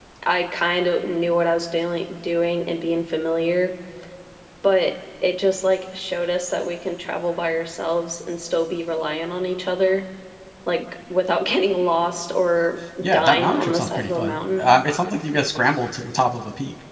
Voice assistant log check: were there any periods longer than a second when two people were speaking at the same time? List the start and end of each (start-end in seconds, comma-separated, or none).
13.0-14.6